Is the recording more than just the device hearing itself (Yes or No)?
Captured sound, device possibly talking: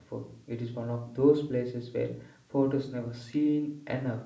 Yes